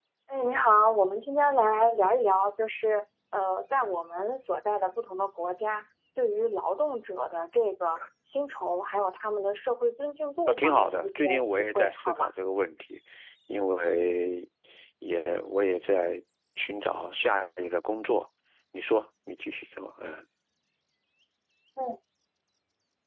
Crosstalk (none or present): present